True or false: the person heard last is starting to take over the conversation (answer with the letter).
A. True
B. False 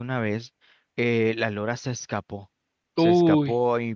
B